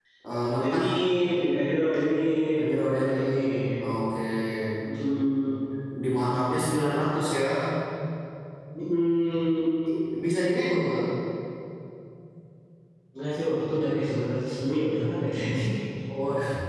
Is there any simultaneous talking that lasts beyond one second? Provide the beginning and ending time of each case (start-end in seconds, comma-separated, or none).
2.6-3.8